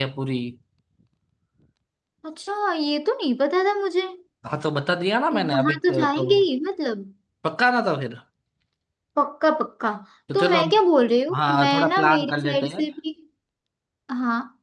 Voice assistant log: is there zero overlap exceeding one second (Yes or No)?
No